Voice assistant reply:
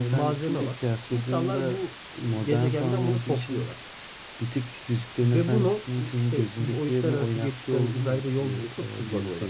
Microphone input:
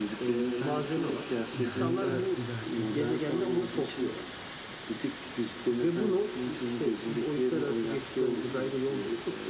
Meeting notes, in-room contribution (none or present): present